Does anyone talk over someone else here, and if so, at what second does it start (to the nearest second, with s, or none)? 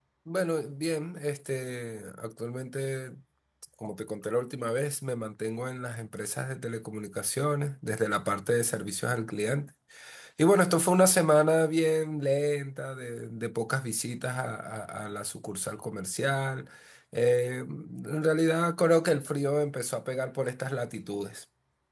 none